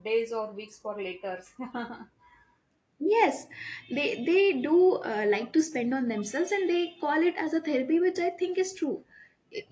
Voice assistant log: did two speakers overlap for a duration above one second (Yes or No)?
No